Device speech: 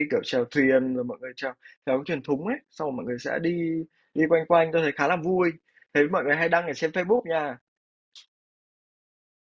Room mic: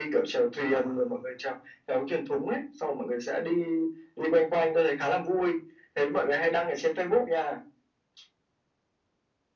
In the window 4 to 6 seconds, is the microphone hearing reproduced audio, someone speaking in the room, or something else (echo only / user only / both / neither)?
echo only